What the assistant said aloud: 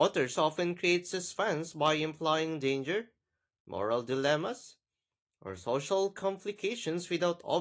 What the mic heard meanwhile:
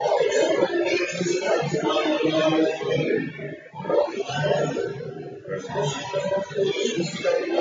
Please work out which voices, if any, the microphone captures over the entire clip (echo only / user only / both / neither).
echo only